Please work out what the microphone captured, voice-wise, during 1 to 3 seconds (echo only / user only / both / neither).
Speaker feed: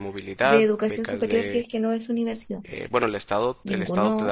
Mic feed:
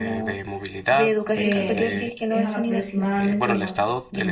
both